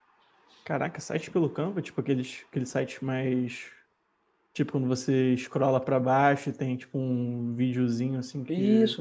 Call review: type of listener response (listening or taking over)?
taking over